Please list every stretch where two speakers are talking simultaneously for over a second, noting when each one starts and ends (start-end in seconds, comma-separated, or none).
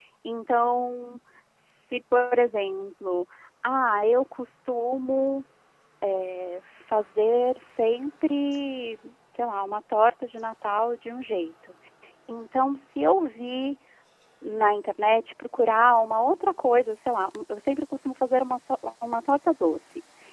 none